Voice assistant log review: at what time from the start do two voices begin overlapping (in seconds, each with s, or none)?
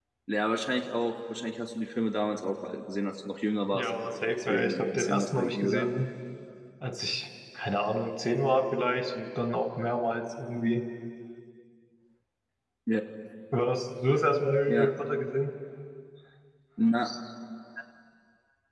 3.7 s